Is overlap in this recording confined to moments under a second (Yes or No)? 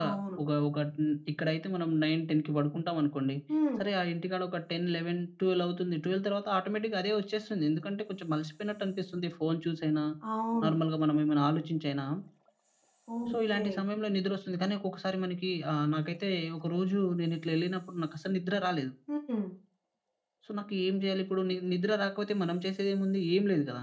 Yes